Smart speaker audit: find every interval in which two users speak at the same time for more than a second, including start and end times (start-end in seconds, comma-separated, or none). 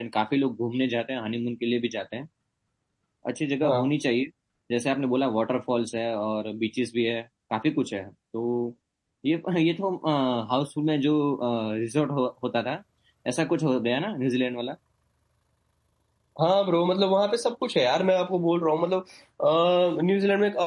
none